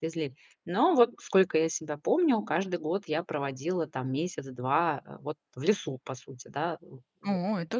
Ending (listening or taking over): taking over